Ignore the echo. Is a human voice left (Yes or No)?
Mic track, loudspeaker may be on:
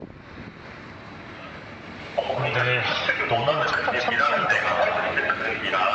Yes